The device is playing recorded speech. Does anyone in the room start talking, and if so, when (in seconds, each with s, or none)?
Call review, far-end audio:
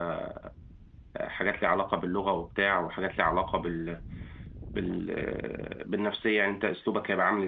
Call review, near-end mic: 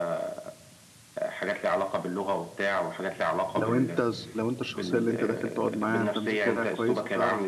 3.6 s